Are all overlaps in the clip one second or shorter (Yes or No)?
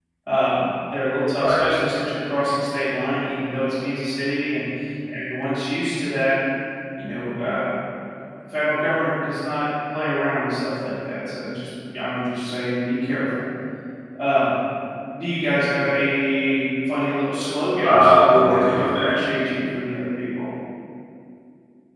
No